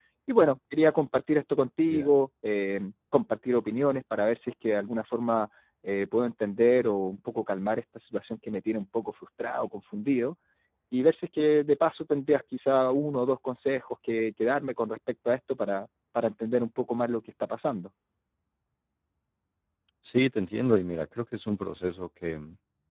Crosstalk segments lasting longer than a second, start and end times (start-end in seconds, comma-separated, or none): none